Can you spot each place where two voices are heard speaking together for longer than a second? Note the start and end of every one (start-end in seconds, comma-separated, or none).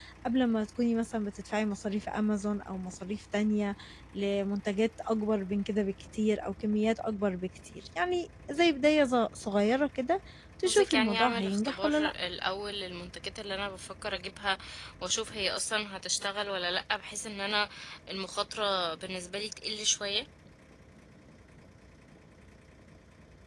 10.7-12.1